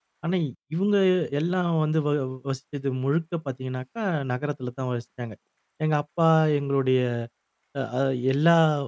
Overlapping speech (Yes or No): No